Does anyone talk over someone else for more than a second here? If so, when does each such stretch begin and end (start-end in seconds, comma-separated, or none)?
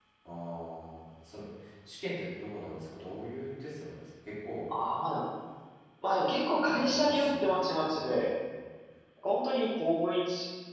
6.8-8.2